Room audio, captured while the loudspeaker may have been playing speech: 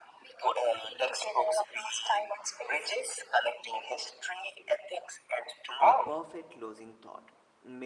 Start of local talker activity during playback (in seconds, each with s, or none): 5.8 s